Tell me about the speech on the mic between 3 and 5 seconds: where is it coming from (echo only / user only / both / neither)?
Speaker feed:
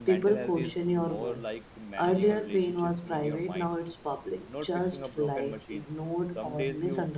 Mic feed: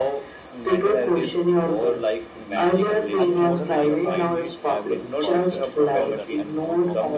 both